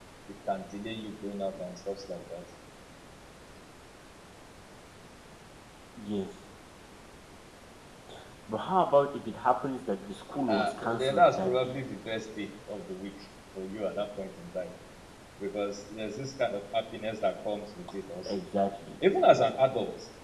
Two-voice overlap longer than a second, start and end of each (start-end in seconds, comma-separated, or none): 10.5-11.7